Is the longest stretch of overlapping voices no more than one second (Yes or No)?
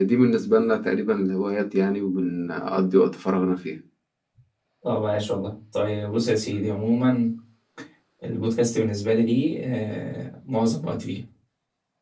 Yes